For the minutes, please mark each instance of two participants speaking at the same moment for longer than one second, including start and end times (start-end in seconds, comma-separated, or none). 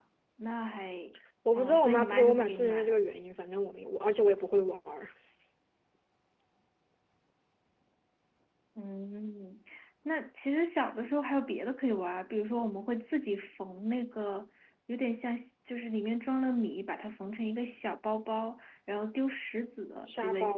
1.6-2.9